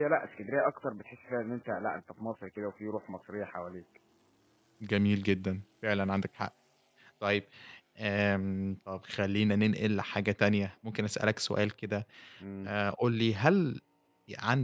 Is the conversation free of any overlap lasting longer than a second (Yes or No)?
Yes